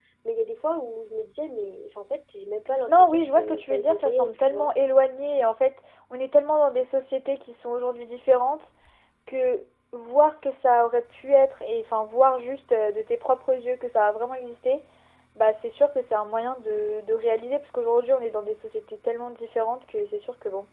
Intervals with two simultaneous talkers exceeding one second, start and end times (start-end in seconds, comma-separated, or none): 2.9-4.7